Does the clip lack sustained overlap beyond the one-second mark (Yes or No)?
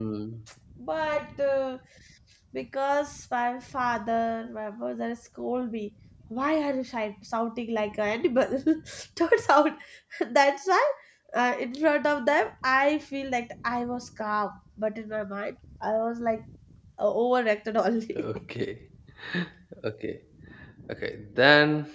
Yes